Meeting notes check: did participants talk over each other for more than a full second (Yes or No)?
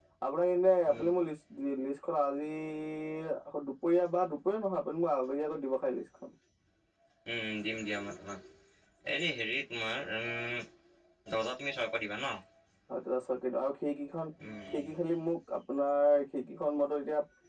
No